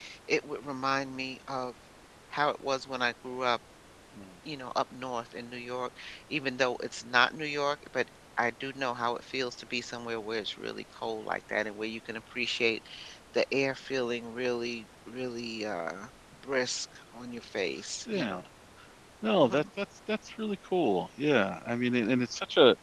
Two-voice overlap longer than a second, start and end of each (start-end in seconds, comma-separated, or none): none